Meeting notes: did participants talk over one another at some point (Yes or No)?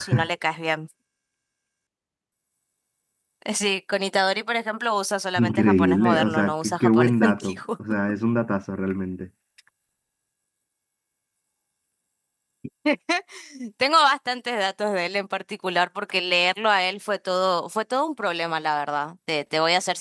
Yes